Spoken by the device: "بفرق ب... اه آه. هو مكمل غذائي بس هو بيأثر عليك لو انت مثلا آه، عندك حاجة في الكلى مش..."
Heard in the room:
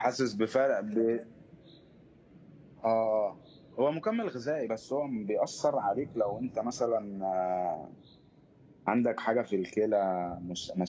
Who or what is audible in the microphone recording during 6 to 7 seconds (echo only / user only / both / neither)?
echo only